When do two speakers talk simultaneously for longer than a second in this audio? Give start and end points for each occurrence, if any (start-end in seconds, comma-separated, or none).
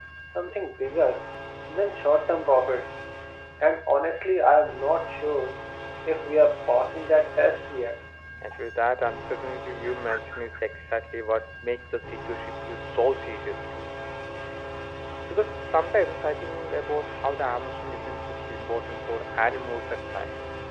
none